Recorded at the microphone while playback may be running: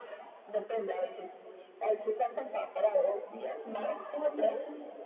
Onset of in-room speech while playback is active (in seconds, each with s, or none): none